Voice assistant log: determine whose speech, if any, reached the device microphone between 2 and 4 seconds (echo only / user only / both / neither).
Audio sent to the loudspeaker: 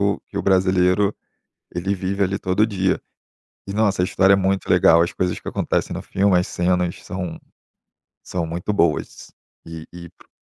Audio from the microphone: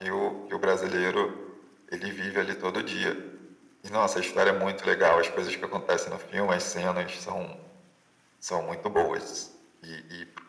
echo only